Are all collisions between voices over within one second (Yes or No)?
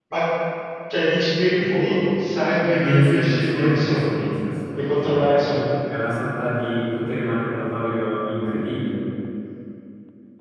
No